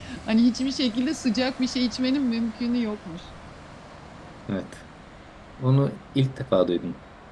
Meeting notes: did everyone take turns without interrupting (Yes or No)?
Yes